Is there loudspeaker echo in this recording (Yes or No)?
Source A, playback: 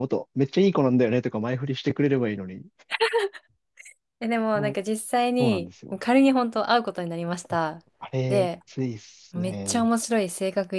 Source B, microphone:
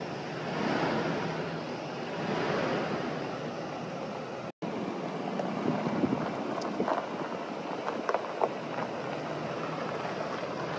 No